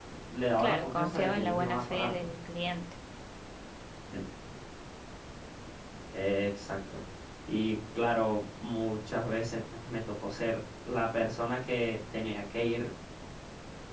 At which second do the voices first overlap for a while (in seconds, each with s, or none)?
0.6 s